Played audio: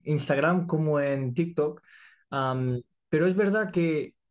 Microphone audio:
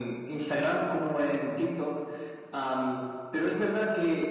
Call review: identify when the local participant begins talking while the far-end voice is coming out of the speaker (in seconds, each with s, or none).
none